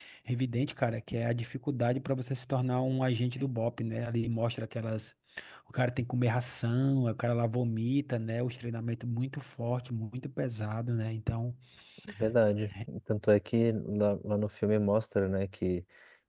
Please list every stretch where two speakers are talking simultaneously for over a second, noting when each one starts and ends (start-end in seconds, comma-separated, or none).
none